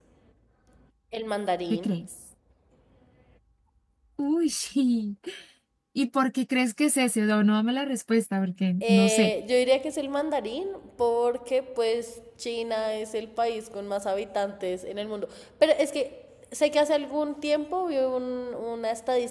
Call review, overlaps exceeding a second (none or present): none